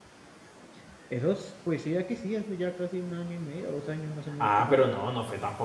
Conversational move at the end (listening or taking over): taking over